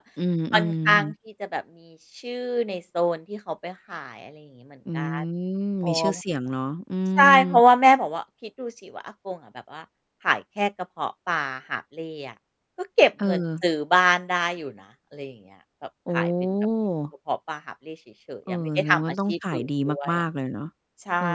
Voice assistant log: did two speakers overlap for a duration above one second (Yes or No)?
Yes